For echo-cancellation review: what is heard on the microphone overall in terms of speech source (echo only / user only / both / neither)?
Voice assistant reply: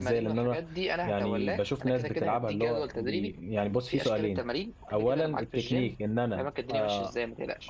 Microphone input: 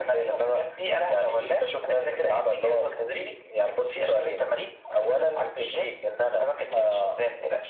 echo only